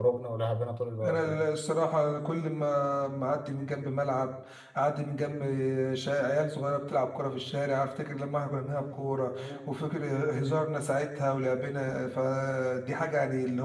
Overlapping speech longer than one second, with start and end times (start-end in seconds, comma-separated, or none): none